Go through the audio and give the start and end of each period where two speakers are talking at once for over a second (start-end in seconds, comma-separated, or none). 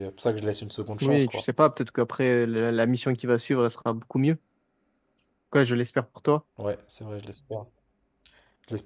none